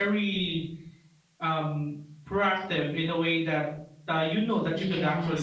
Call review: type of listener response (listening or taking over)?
taking over